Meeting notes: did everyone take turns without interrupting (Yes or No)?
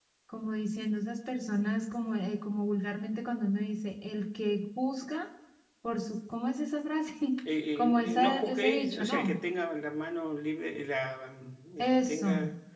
No